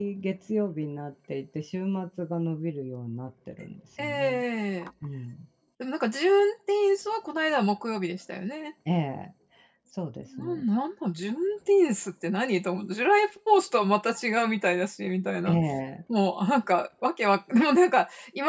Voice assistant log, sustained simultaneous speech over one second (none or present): none